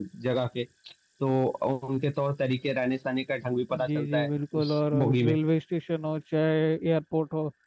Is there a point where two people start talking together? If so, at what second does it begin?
4 s

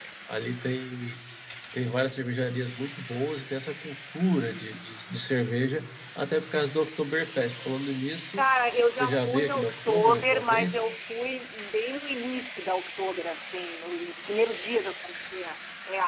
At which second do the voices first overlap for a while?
9 s

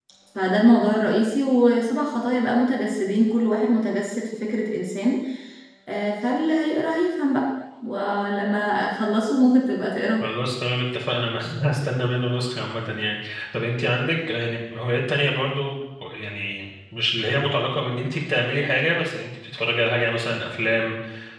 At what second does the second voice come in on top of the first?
none

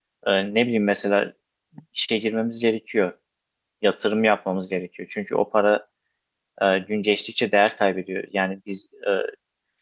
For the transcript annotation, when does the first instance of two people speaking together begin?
none

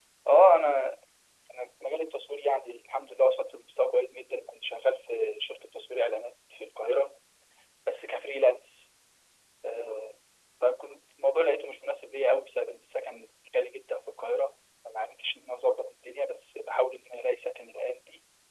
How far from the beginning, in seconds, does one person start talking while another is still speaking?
none

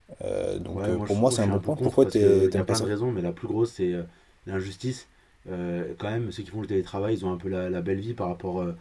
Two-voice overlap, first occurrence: 1 s

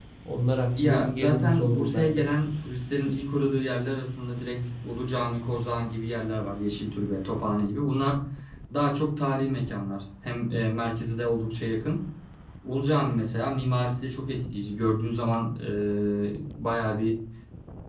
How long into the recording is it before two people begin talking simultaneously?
1 s

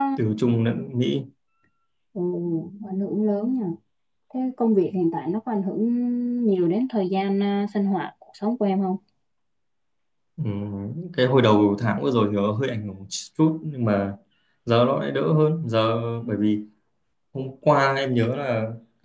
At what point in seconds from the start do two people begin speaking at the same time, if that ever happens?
none

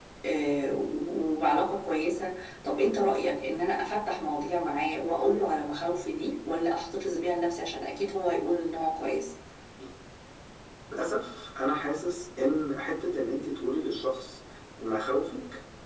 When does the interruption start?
none

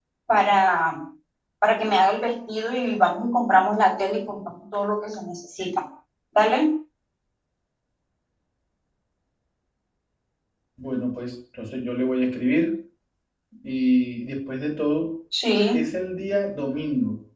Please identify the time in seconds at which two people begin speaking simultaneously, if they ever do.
none

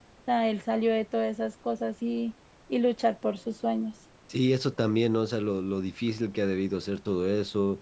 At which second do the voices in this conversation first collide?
none

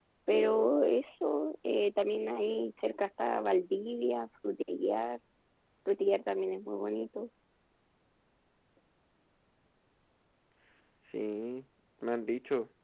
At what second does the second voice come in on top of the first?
none

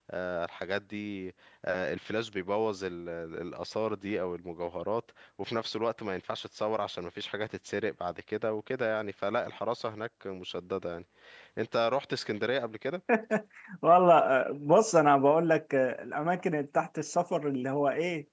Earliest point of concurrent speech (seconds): none

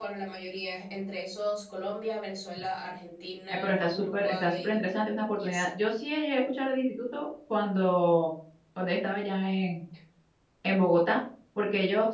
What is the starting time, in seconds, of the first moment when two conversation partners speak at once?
4 s

